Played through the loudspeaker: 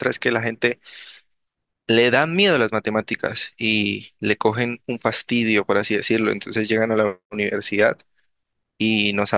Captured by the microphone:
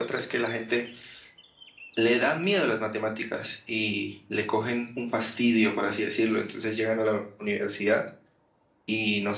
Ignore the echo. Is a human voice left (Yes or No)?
No